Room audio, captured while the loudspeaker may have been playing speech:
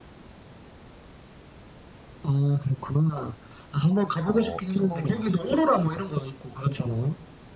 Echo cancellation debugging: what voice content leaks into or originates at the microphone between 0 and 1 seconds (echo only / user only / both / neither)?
neither